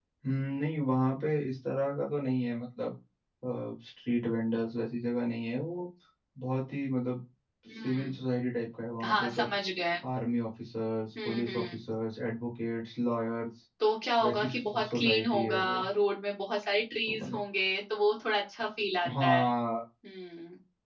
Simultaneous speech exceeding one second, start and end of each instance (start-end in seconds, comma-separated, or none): 14.2-15.8